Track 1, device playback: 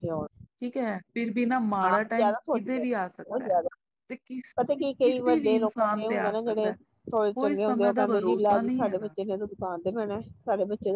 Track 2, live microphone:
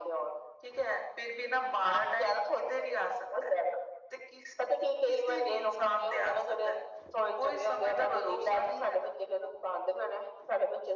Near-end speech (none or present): none